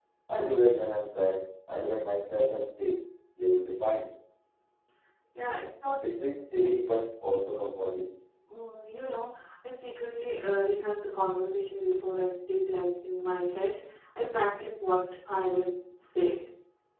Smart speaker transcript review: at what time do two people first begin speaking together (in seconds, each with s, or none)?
none